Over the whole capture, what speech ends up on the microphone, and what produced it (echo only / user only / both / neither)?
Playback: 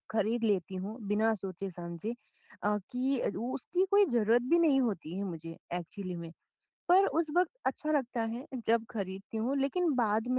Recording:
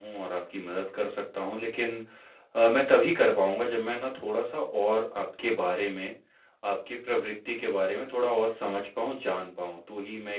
user only